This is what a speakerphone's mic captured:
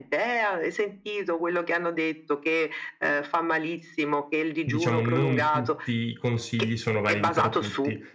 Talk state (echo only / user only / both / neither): both